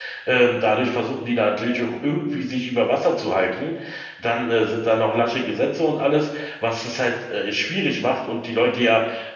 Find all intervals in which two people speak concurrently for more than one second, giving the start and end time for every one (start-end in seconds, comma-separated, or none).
none